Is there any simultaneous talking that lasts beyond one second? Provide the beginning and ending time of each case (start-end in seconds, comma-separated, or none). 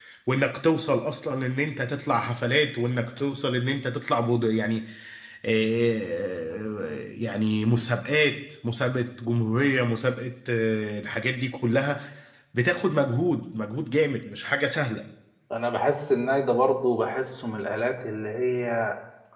none